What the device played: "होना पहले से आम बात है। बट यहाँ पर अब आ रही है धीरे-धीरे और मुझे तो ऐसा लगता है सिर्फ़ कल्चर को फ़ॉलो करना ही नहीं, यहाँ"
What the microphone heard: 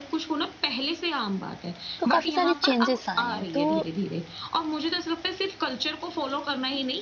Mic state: both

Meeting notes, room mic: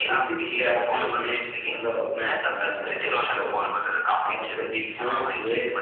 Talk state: both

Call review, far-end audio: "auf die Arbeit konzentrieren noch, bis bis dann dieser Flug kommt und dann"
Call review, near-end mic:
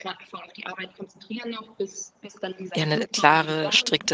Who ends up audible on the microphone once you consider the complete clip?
both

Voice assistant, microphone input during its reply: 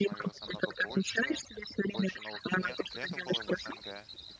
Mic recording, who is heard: both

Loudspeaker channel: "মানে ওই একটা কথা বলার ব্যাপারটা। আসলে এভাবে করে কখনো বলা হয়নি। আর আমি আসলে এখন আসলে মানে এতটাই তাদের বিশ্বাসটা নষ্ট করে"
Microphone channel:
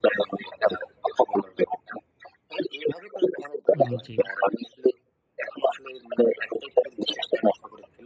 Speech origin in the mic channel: both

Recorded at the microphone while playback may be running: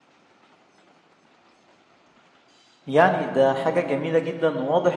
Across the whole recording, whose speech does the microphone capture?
user only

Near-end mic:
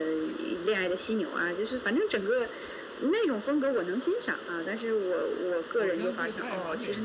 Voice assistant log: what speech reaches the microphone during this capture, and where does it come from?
both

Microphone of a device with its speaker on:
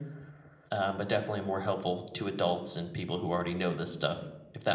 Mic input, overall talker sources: echo only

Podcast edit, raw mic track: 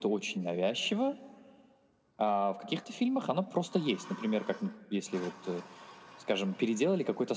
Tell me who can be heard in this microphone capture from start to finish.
echo only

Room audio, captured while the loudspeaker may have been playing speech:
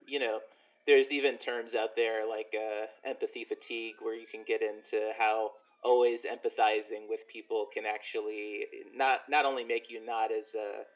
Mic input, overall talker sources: echo only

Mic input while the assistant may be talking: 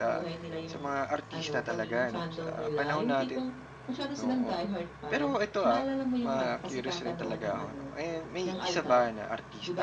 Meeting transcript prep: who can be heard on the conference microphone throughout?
both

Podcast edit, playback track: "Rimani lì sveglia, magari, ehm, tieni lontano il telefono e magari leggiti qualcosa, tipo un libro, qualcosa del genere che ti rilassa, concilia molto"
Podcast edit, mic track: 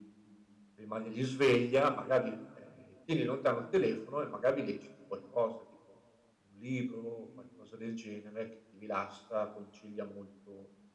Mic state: echo only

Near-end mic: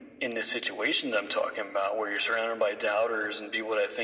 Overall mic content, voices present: echo only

